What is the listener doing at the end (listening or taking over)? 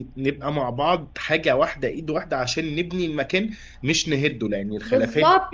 taking over